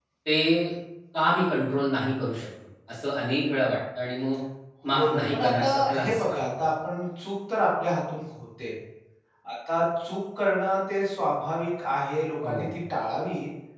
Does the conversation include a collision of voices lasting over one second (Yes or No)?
Yes